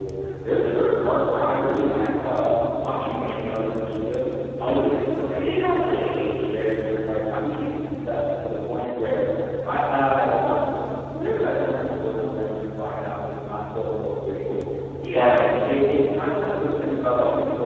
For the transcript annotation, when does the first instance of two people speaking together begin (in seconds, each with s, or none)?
5.3 s